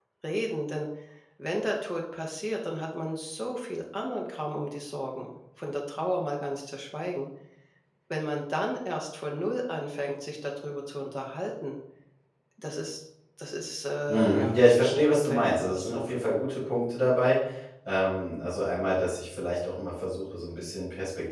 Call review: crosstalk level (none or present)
present